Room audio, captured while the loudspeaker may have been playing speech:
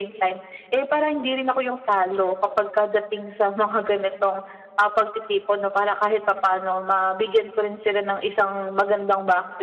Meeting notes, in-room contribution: none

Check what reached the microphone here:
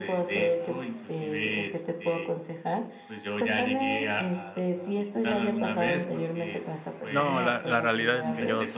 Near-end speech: present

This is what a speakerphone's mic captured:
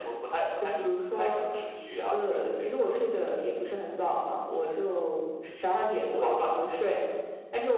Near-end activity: none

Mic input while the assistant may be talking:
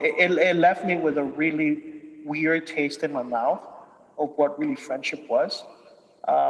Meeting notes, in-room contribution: none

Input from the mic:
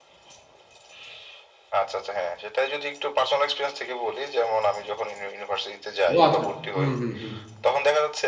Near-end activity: present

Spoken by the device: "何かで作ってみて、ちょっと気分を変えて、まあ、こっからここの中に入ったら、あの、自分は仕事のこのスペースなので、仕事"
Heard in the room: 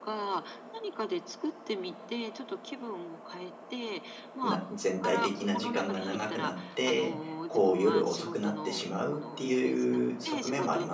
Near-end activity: present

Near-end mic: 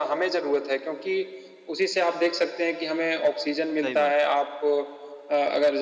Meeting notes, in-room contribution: present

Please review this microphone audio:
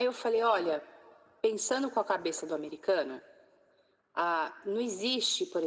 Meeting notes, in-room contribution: none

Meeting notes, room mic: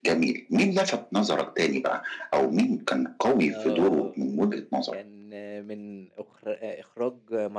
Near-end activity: present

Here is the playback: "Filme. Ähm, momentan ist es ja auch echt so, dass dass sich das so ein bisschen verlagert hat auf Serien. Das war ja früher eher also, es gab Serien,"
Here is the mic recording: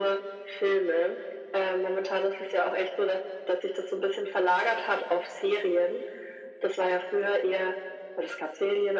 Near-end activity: none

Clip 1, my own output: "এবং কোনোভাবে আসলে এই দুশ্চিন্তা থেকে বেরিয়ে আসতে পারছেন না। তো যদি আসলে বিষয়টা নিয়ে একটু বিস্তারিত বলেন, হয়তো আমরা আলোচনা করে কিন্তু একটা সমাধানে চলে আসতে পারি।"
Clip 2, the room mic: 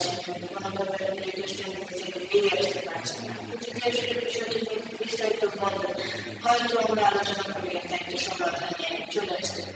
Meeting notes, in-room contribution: present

